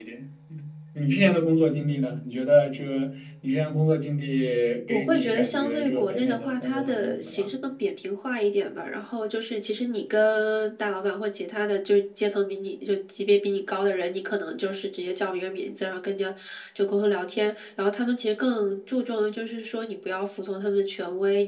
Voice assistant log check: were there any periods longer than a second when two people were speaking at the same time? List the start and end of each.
4.9-7.5

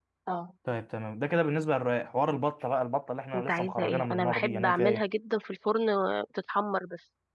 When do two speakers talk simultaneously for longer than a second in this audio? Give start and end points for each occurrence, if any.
3.3-5.0

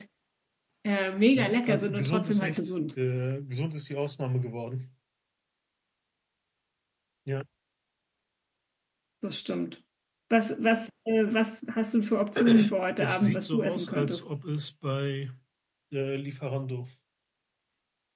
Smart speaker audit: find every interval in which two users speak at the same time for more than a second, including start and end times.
1.4-2.7, 13.0-14.2

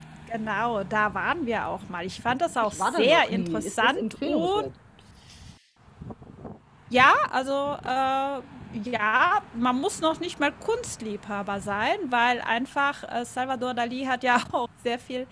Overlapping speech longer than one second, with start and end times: 2.6-4.7

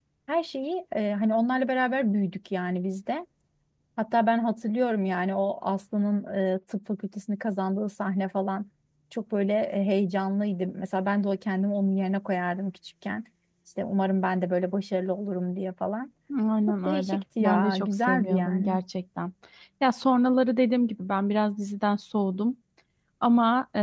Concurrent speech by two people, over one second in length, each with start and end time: 16.8-18.8

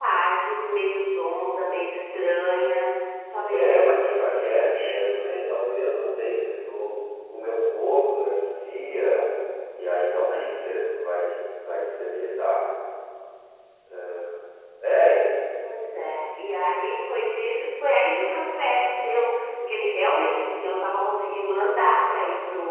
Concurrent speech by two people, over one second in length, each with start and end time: 3.5-5.0

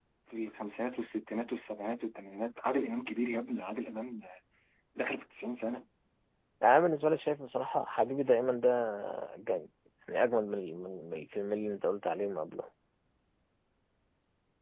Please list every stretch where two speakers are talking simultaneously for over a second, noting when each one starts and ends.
none

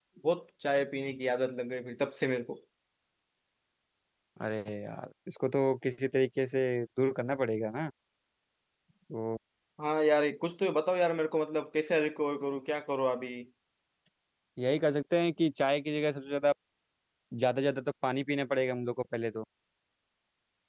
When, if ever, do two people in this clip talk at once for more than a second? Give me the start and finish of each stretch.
none

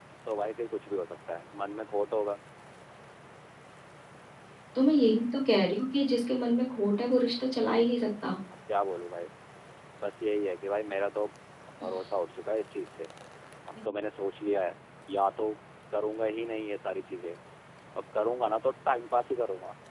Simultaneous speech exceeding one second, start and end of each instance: none

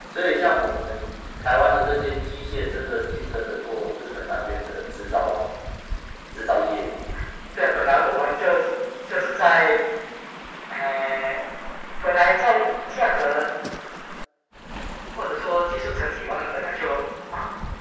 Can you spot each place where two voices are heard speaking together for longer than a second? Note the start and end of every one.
none

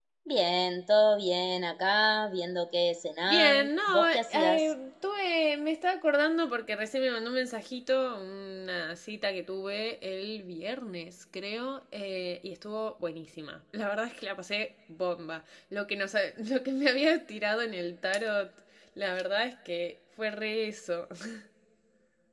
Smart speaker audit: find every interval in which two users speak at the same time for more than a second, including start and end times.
3.2-4.6

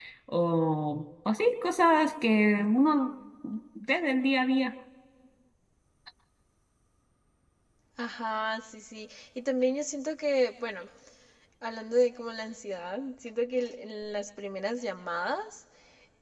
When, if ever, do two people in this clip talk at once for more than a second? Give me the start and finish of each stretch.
none

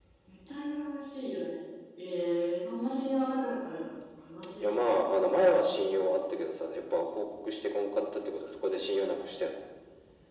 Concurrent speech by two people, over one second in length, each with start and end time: none

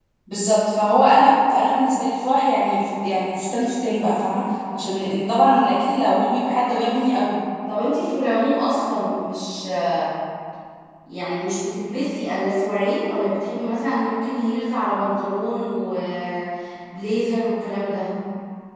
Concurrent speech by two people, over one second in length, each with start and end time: none

